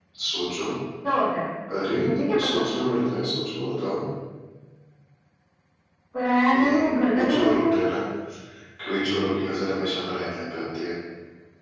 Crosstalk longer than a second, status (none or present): present